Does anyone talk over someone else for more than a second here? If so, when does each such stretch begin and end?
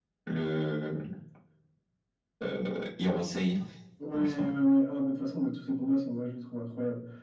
none

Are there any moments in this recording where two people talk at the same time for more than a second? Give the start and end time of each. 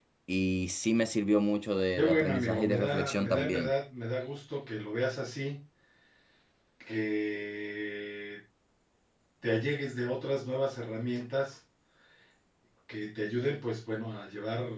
2.0-3.7

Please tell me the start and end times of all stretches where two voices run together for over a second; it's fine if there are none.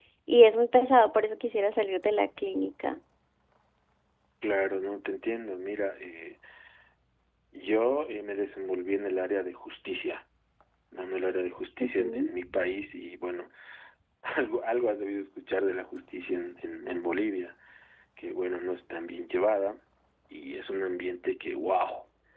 none

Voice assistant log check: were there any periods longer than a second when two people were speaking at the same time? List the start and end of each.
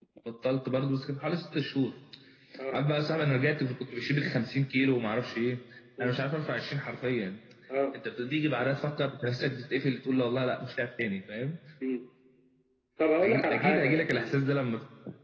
13.2-14.4

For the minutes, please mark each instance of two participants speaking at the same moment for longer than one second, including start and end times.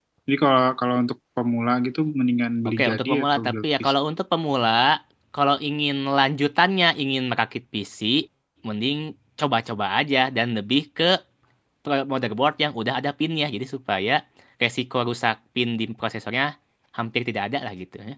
2.7-3.9

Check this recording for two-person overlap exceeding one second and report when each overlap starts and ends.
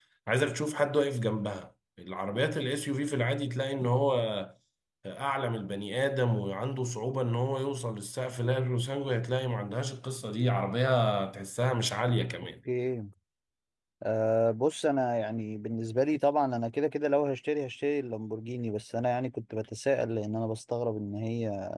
none

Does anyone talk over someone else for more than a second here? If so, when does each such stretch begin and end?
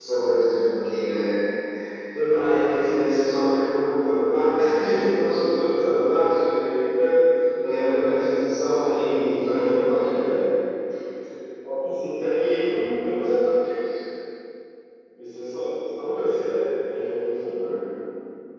8.7-10.3

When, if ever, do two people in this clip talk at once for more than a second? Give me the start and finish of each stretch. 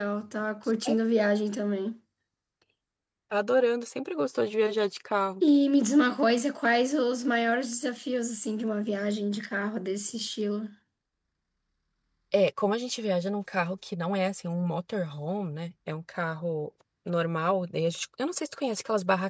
none

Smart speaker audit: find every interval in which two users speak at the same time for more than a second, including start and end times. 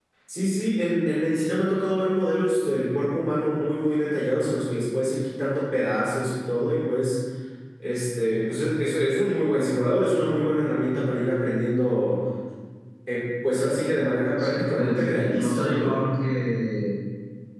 14.4-16.0

